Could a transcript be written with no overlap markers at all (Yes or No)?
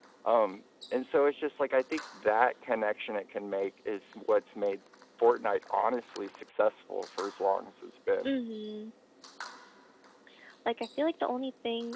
Yes